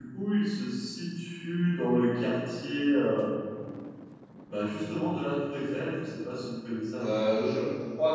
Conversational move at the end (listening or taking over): taking over